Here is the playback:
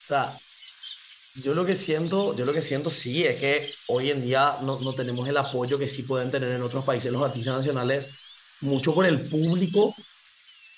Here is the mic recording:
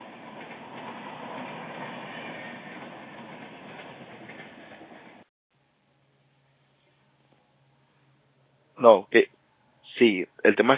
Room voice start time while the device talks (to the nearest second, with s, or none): 9 s